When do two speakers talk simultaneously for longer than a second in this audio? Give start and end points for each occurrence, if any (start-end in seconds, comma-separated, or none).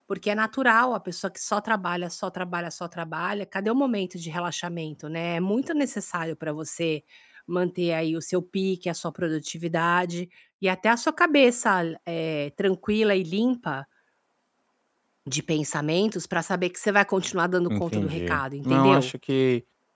17.7-19.1